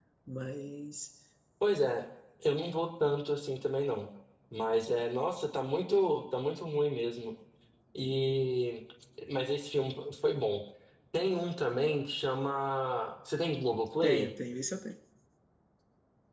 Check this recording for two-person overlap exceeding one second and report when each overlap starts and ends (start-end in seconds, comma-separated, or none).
none